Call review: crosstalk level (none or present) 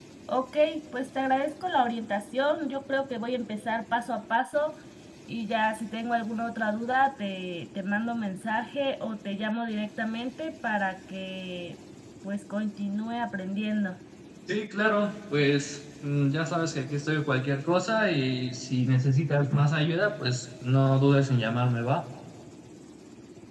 none